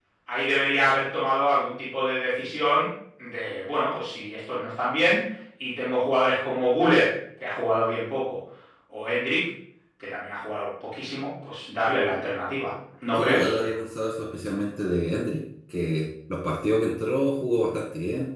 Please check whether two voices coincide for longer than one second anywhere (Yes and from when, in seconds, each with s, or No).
No